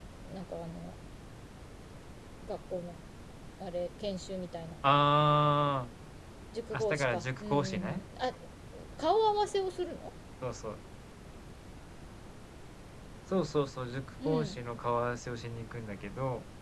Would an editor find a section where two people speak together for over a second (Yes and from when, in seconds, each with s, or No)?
Yes, from 6.7 s